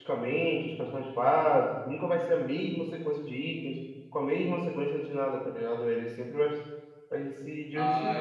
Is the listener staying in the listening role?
No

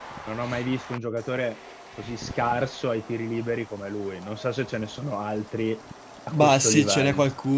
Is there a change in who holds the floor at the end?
Yes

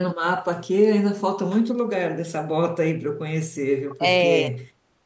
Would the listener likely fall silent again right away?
Yes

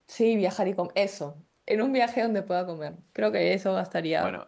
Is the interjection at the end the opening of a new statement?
Yes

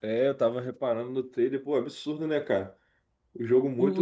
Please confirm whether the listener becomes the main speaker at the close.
Yes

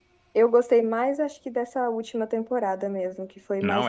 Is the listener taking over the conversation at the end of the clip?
Yes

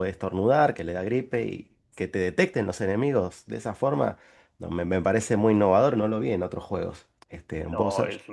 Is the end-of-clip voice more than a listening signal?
Yes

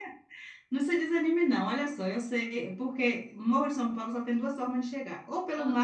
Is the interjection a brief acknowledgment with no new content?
Yes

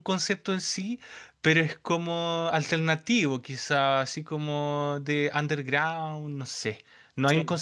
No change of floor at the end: Yes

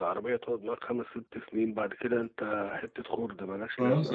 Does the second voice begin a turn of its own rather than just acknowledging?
Yes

